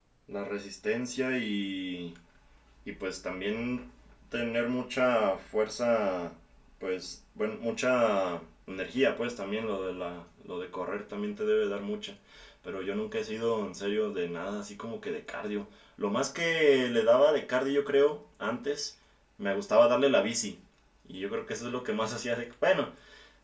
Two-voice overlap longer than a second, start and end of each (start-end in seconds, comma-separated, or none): none